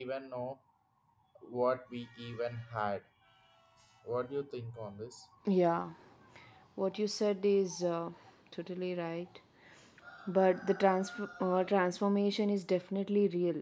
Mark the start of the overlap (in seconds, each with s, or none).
none